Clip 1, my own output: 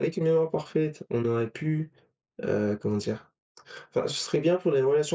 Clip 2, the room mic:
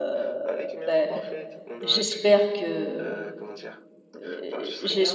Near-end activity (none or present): present